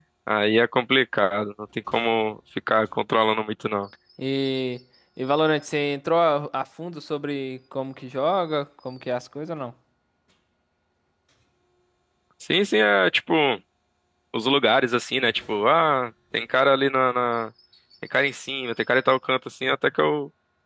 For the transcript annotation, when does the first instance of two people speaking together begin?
none

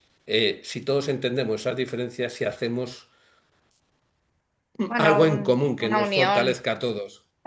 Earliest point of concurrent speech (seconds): 5.0 s

